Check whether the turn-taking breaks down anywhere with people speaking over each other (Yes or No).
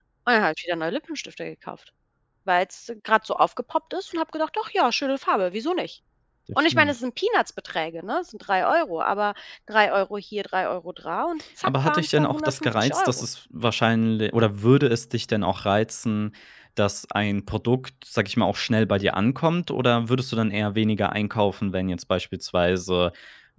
Yes